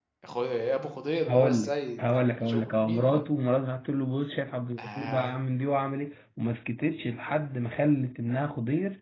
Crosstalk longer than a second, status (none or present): present